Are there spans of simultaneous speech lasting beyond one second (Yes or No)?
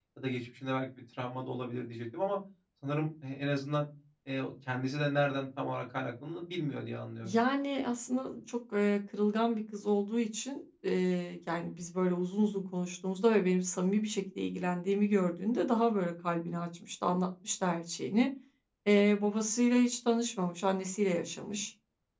No